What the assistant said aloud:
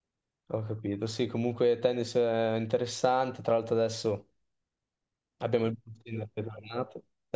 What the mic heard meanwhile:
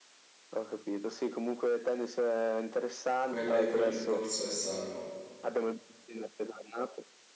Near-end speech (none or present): present